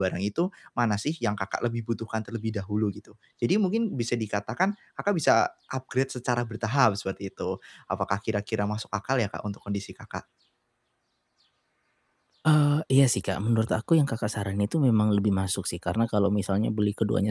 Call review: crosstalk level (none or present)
none